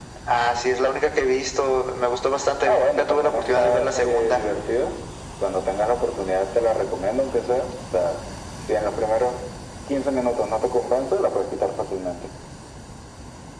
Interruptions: present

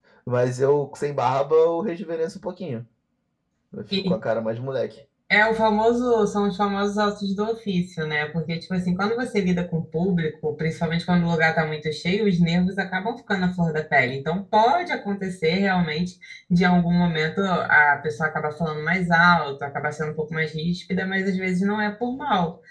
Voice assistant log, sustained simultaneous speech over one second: none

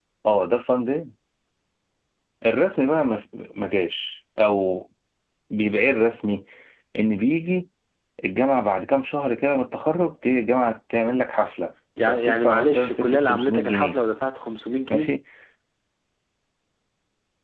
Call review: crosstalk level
present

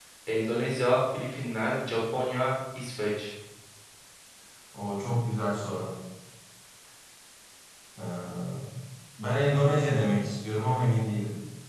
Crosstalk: none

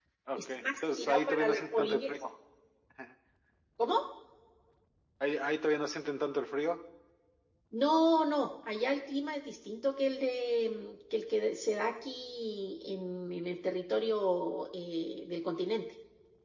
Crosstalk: present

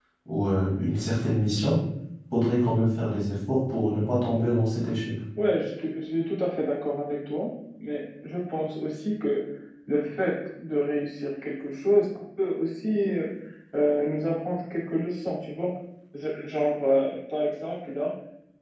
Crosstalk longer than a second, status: none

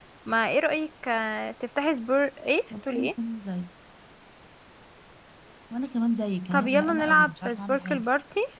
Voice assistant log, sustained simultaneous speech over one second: present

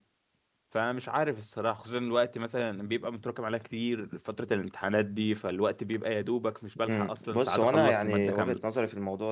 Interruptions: present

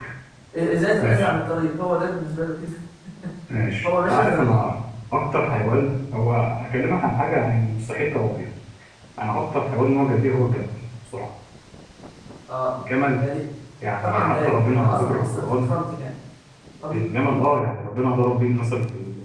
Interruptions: present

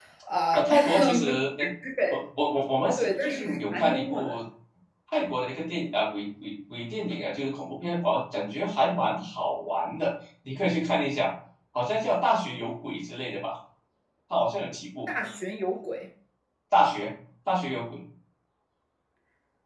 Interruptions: present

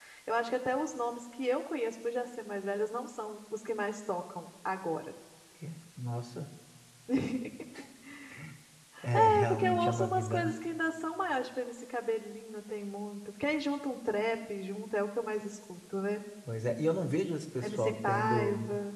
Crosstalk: present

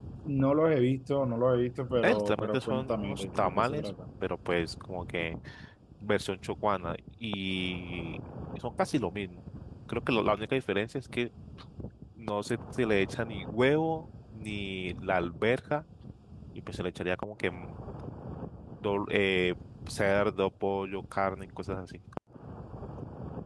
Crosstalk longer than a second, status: present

